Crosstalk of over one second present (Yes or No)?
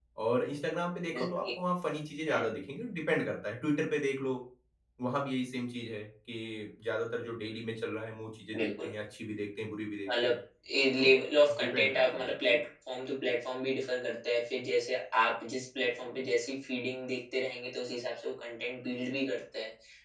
Yes